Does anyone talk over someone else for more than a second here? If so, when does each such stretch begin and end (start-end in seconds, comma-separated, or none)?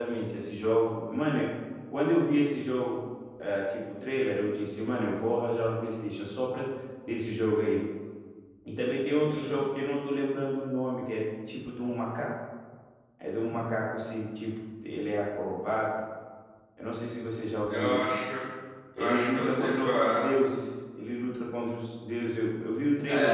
19.0-20.2